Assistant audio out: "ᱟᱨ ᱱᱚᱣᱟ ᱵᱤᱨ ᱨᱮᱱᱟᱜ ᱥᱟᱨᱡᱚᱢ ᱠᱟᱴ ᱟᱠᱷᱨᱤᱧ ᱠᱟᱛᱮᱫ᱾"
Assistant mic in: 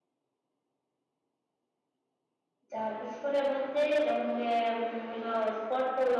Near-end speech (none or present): present